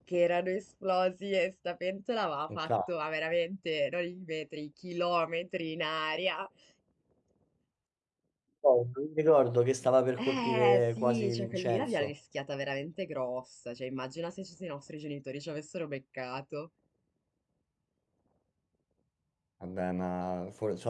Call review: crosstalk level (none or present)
present